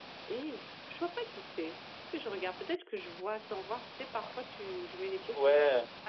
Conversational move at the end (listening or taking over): taking over